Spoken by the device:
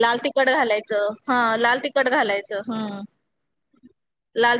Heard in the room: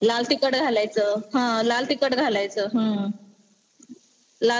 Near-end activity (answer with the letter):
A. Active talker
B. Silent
B